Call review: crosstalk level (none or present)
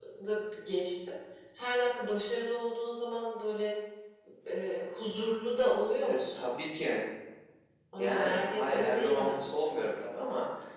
present